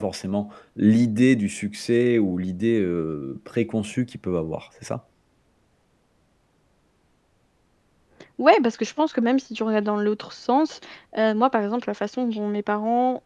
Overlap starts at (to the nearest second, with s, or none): none